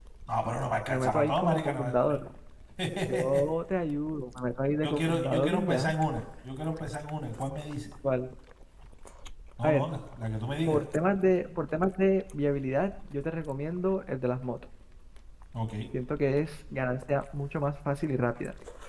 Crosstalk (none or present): present